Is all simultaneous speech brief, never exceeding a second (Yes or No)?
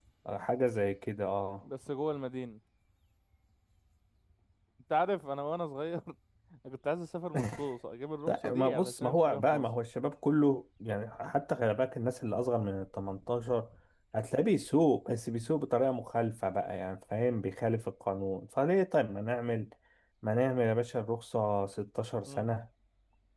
No